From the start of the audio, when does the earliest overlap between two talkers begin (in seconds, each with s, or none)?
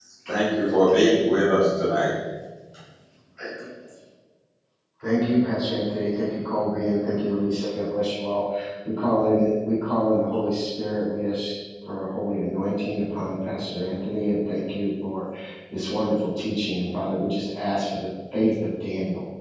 none